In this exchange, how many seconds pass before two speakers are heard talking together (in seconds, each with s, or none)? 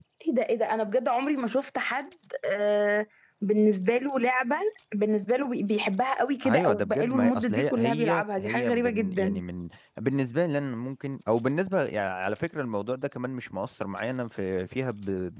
6.4 s